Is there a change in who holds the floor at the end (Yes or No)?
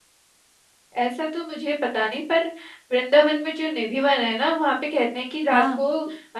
No